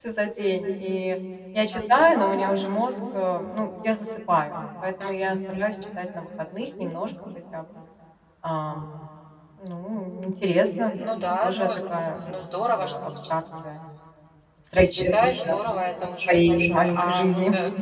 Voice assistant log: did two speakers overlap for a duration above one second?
Yes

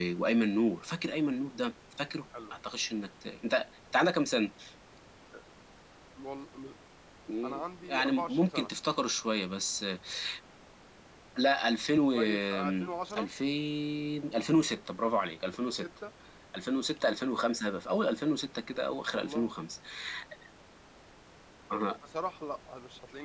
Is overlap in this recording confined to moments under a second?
No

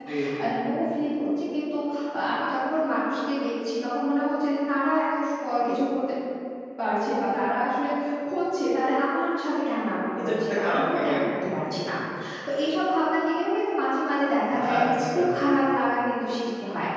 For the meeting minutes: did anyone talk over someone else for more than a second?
Yes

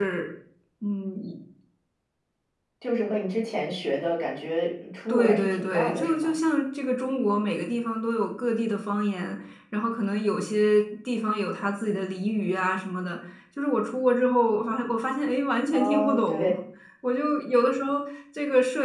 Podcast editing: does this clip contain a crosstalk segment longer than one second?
Yes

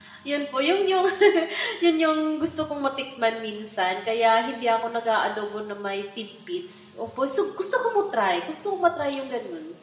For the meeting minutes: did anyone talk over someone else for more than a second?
No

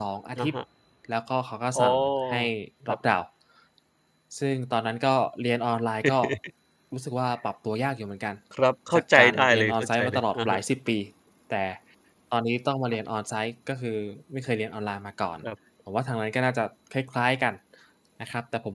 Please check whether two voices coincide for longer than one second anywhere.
Yes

